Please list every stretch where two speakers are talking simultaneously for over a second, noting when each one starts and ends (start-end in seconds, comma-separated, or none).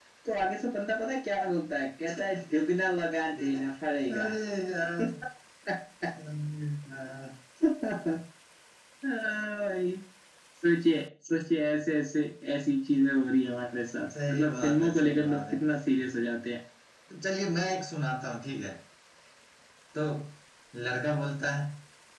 14.3-15.6